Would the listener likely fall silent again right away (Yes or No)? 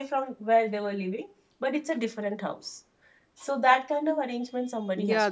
No